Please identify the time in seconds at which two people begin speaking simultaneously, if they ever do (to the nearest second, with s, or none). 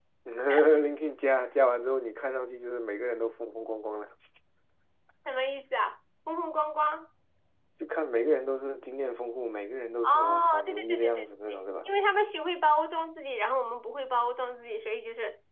10 s